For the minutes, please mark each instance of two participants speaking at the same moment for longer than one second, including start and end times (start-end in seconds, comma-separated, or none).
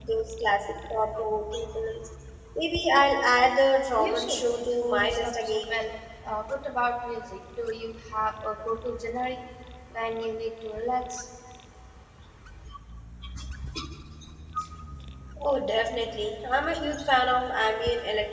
4.0-5.7